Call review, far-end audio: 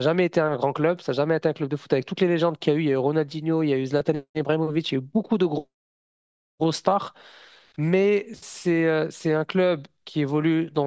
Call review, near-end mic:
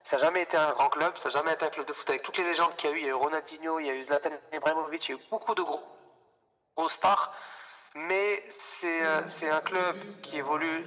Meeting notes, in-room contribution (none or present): present